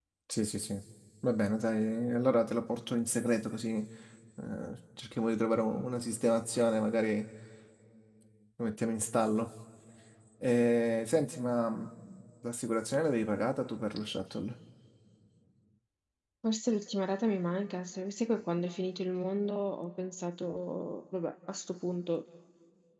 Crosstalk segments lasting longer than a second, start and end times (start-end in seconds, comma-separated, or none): none